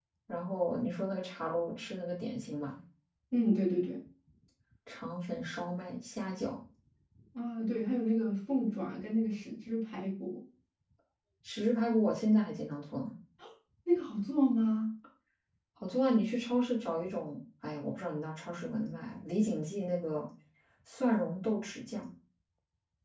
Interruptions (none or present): none